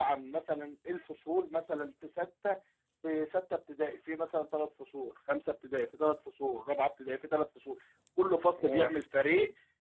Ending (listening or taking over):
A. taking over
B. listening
B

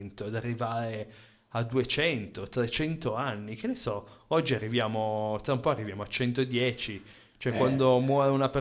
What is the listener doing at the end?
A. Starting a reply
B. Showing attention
B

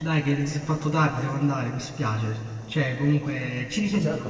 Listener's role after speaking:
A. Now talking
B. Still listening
A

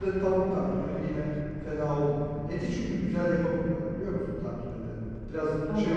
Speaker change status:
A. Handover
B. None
B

